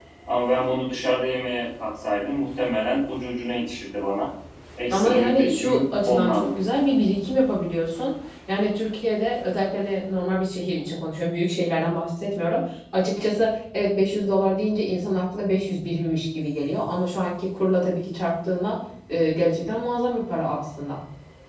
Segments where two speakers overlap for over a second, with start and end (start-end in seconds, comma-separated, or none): 4.9-6.6